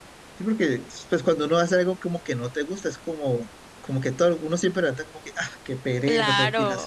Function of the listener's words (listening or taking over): taking over